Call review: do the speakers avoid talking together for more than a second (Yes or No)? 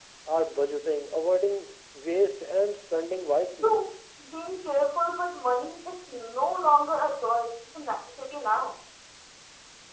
Yes